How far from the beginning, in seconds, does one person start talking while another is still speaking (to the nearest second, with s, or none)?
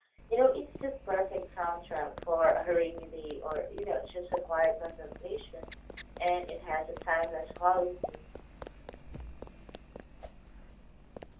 none